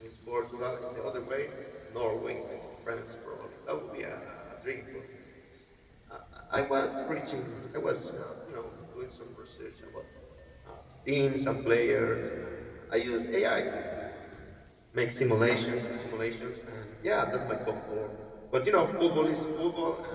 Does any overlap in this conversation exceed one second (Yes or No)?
No